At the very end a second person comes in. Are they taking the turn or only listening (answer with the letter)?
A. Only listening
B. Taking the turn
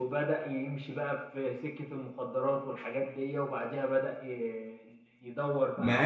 A